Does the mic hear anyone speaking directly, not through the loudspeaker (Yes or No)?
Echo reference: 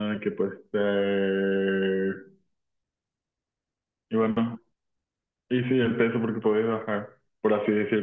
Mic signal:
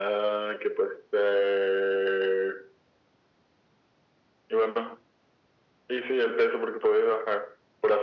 No